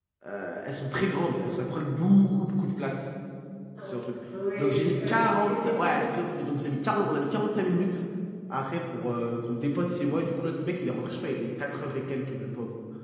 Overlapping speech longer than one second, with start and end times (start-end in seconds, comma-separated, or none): 4.6-6.2